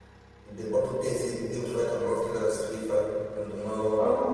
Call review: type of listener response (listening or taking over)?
listening